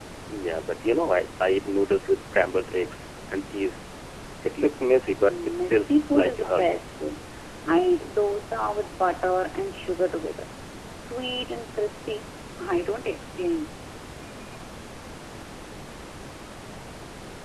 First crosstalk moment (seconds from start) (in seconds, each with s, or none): 5.2 s